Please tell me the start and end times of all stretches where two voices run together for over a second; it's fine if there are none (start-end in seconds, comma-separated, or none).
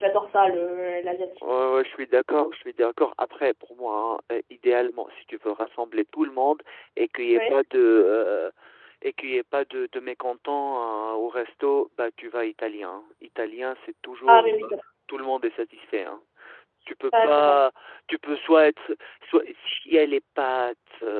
none